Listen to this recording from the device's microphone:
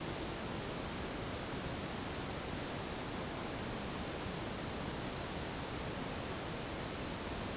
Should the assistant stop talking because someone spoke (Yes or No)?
No